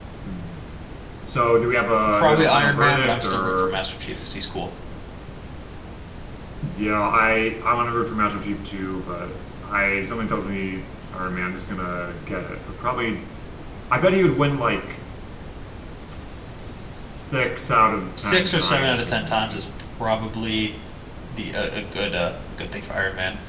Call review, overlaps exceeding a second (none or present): present